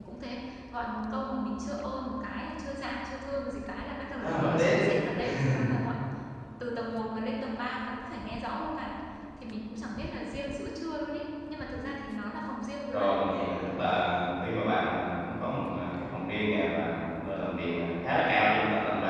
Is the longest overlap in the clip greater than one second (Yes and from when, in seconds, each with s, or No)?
No